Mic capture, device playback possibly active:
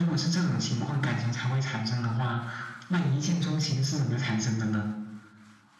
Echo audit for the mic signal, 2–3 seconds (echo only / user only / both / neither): echo only